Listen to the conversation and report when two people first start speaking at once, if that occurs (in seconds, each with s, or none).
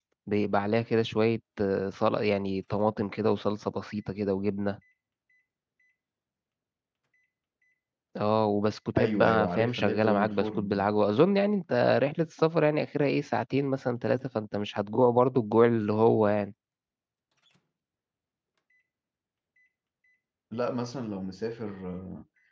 9.0 s